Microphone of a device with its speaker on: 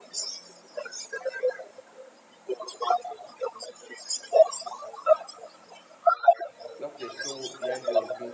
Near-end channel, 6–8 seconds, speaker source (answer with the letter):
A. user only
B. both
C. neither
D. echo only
B